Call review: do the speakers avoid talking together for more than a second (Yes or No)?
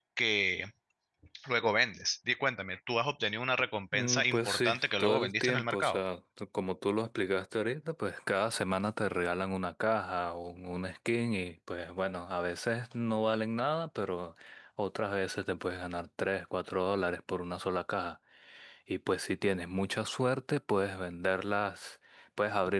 No